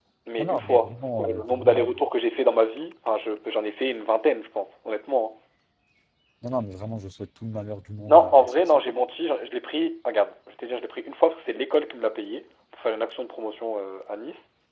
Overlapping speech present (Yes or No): Yes